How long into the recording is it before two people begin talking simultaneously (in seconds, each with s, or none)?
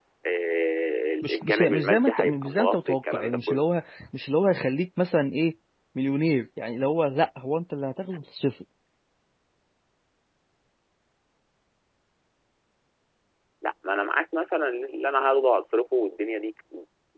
1.2 s